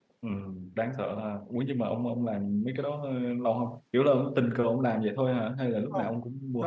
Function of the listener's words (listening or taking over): taking over